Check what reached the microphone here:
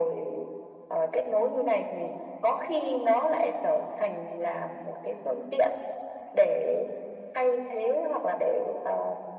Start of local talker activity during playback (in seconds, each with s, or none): none